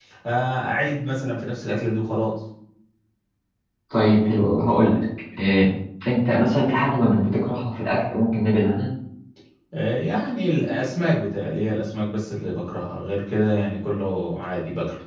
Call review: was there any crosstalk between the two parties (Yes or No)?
No